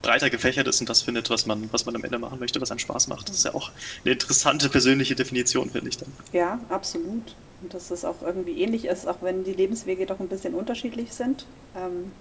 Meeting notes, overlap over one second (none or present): none